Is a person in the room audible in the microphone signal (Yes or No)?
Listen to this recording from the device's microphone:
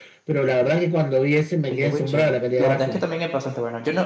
Yes